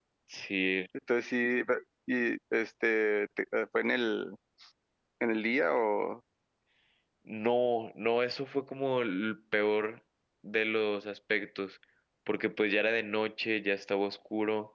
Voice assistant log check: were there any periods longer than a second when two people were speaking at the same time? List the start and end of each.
none

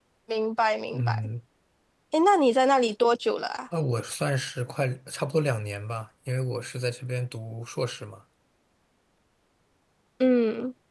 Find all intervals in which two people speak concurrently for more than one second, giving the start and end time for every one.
none

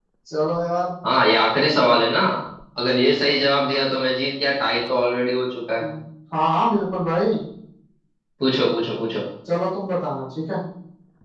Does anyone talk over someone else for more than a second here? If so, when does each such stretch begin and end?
none

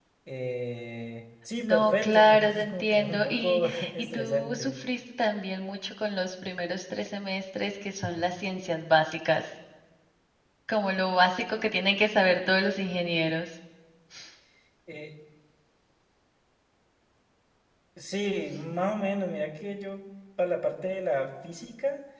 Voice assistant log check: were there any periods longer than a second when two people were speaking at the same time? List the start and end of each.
1.6-4.8

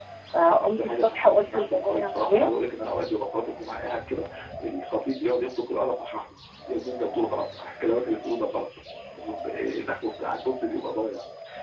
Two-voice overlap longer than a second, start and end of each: 0.6-2.5

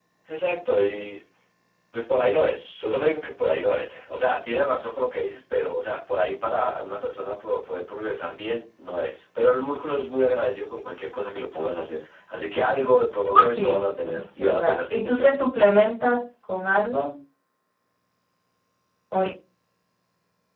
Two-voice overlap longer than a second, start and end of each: 13.6-15.4

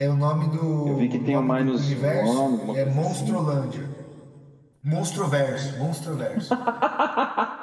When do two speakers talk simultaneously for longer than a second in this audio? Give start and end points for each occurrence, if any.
0.9-3.4

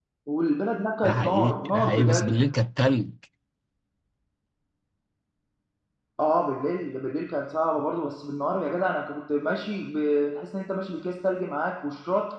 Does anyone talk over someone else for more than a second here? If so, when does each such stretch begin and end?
1.0-2.3

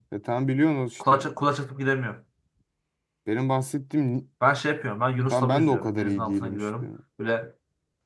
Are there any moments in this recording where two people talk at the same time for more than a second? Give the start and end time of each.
5.3-6.9

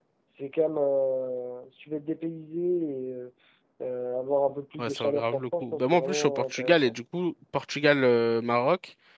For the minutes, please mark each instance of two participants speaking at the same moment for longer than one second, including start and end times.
4.8-6.9

